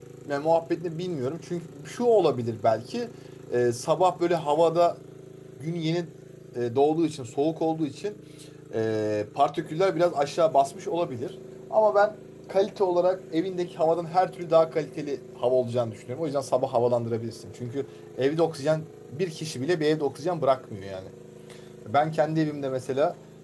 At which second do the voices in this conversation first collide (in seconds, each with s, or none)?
none